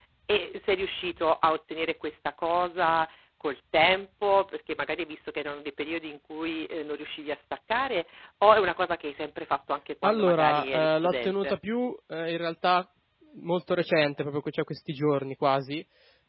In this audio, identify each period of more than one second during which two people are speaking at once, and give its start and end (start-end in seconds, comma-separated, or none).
10.0-11.6